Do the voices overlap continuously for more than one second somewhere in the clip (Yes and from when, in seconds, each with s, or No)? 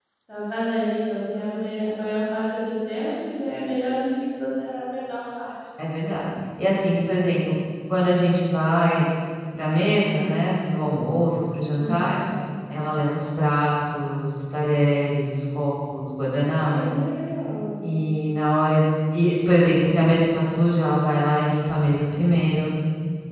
No